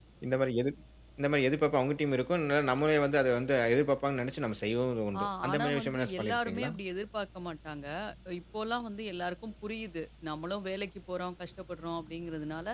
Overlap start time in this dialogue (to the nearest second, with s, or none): 5 s